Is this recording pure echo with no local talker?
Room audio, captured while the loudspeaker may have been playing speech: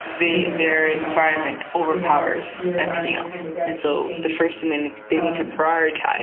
No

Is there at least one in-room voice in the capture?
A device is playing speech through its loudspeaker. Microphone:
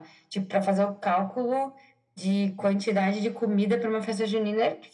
No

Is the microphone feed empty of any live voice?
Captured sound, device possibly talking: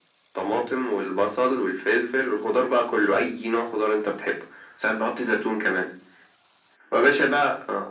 Yes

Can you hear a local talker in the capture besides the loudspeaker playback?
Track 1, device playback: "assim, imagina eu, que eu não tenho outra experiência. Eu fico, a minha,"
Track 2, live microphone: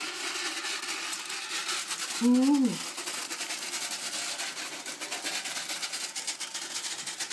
Yes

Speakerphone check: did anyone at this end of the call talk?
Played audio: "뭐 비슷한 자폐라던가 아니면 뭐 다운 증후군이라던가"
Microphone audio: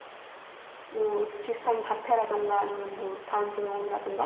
No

